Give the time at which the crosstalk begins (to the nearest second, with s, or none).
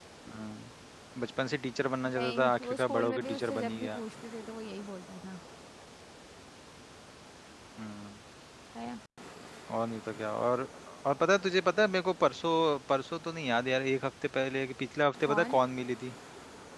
2 s